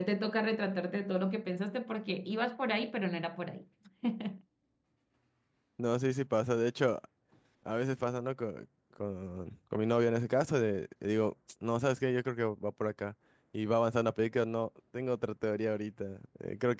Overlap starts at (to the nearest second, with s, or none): none